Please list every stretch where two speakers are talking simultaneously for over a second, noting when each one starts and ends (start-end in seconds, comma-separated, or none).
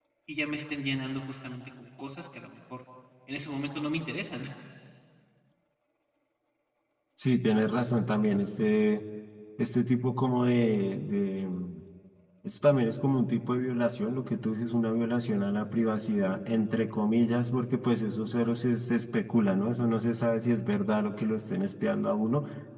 none